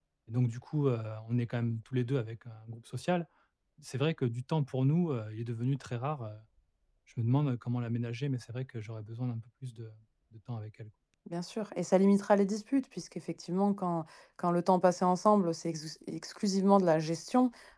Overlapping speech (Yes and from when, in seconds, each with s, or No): No